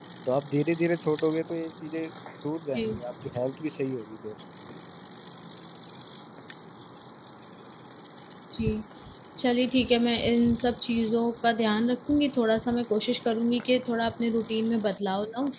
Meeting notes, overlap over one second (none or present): none